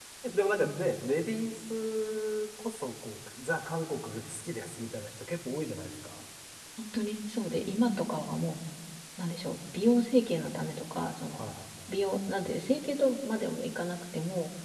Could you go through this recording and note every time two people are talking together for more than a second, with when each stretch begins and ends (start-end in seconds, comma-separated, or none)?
none